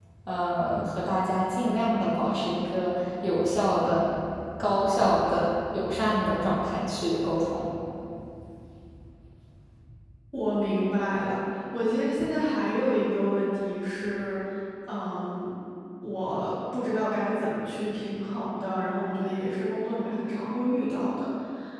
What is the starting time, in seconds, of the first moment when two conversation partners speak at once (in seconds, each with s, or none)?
none